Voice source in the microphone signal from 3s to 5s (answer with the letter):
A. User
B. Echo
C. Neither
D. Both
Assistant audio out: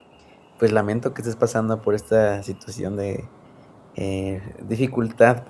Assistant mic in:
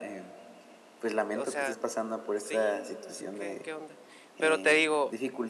D